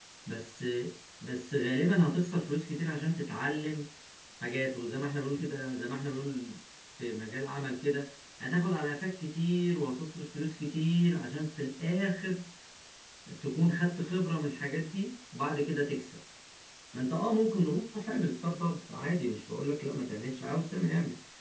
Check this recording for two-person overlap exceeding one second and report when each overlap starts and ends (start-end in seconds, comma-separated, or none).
none